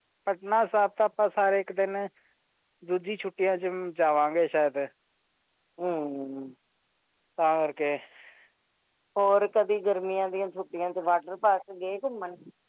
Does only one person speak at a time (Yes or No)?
Yes